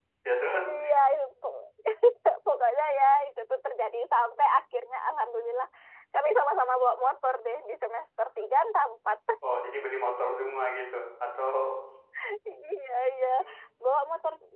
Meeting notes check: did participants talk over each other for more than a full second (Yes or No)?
No